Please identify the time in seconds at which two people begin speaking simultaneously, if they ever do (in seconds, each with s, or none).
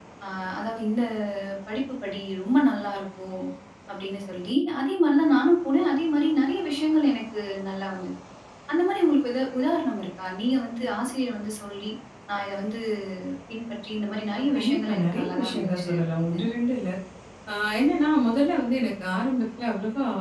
14.4 s